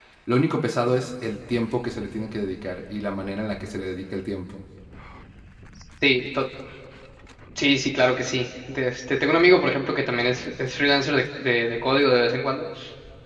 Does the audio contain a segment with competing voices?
No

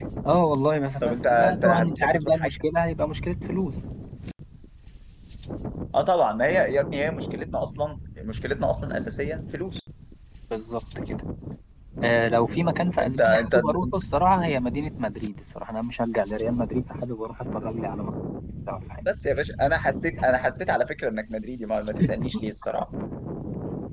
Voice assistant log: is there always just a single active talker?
No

